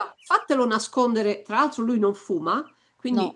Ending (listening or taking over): listening